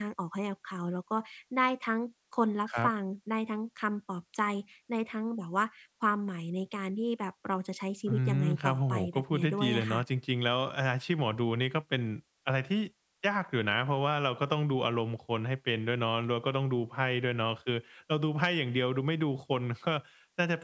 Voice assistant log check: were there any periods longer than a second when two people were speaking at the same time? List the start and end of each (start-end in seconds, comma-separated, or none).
8.1-10.0